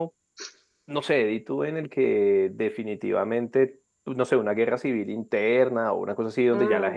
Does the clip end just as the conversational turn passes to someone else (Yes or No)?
No